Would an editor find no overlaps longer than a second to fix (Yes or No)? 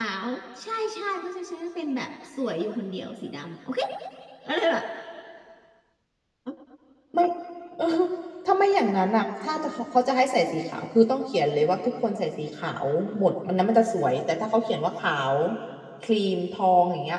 Yes